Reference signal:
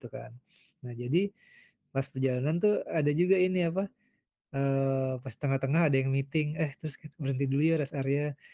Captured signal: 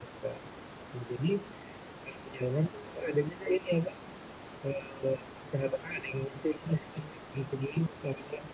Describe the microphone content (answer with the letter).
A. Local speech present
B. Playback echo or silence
B